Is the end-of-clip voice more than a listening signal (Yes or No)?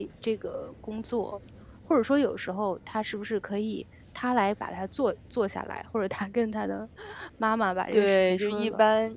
Yes